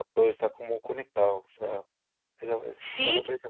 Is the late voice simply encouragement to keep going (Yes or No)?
No